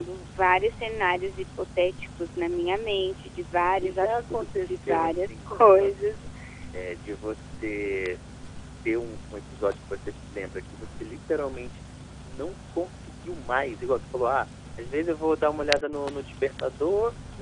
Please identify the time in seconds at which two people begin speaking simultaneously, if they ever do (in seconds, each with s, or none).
3.8 s